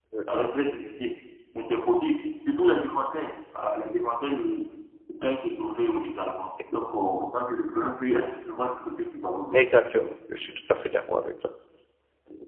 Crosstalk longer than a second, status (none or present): none